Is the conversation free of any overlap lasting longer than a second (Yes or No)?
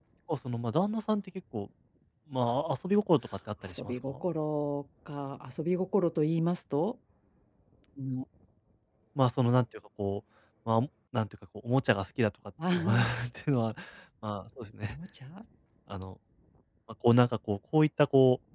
Yes